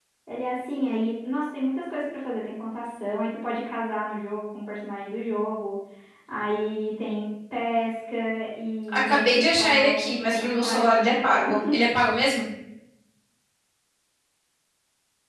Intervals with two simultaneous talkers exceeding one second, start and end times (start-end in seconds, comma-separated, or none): 8.9-11.5